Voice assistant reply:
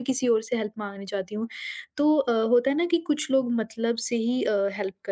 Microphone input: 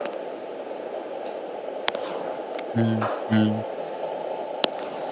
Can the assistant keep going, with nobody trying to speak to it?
No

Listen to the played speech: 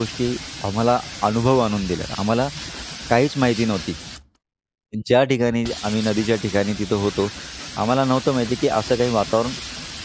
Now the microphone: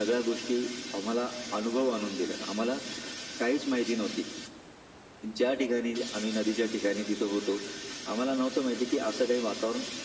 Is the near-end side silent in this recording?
Yes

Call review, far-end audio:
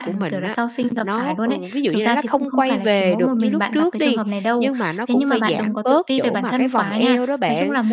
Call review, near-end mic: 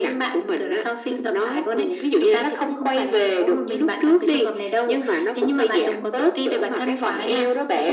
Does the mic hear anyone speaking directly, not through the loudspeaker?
No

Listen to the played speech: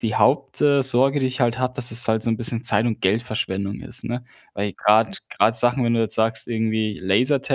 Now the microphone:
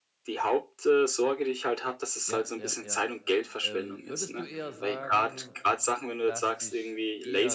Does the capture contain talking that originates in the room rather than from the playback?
Yes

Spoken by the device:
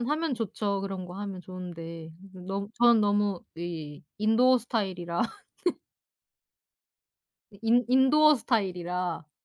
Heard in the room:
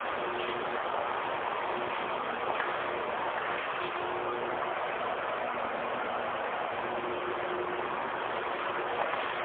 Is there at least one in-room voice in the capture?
No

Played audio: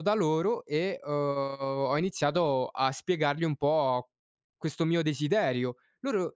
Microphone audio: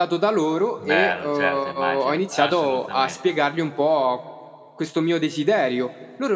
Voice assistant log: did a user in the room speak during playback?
Yes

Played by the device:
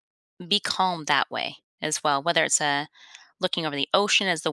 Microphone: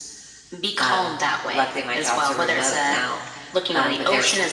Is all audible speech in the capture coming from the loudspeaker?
No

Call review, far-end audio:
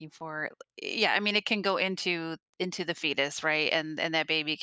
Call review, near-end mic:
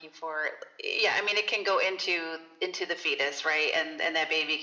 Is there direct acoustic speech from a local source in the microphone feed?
No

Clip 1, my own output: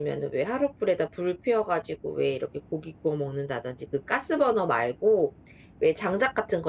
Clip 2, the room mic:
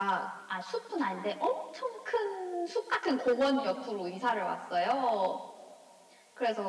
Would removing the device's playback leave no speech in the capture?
No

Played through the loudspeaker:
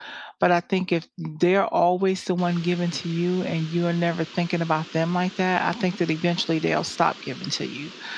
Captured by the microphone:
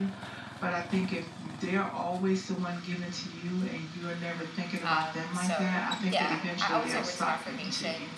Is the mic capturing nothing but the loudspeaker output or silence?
No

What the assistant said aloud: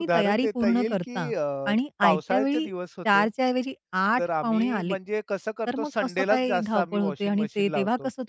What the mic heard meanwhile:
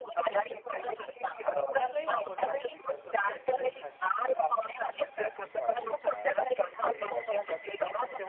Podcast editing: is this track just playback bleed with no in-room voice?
No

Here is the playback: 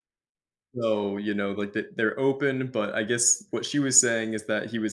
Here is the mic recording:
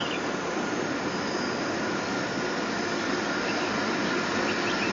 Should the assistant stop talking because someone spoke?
No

